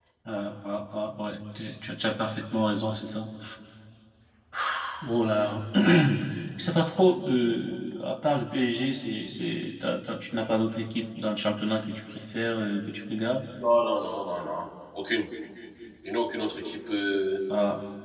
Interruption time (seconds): none

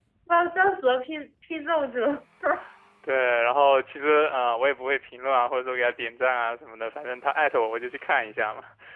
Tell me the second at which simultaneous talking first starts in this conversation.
none

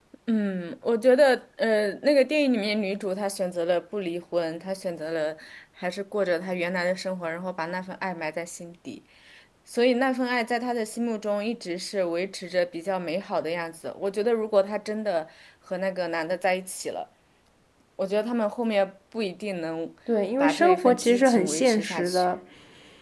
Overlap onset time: 20.4 s

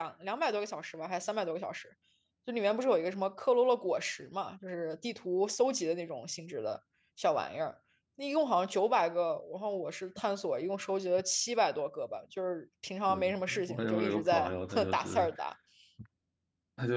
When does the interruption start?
13.1 s

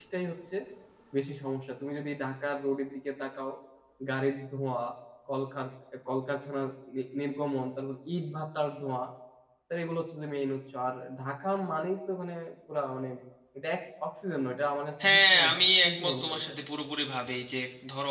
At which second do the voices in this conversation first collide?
15.0 s

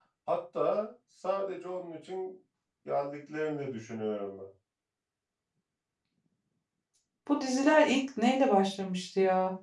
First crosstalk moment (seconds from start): none

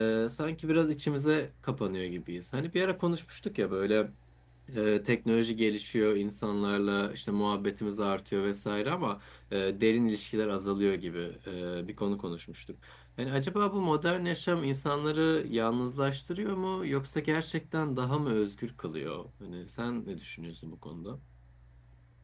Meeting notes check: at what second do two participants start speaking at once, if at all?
none

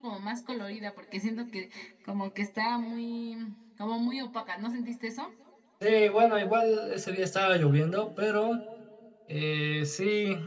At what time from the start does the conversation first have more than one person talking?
none

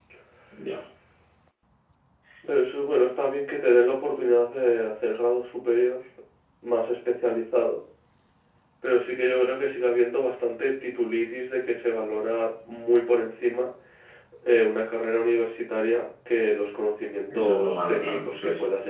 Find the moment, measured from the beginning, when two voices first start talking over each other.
17.3 s

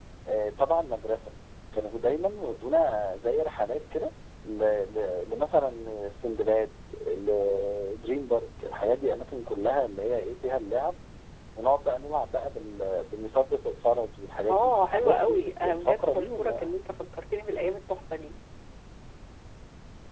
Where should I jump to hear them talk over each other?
14.5 s

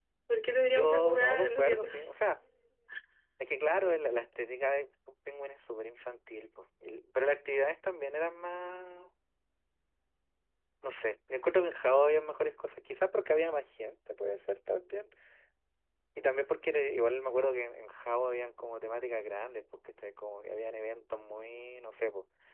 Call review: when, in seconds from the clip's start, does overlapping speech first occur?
0.7 s

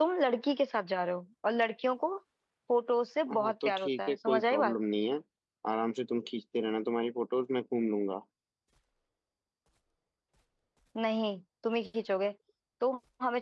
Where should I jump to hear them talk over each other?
3.4 s

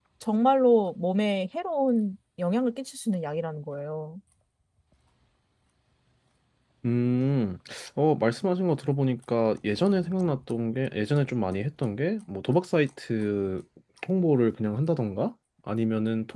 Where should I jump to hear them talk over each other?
none

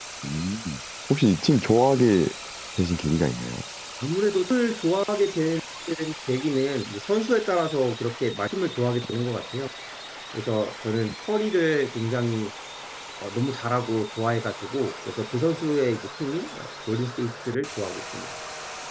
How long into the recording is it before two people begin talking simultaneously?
none

